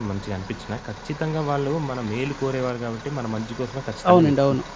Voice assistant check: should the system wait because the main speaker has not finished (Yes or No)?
No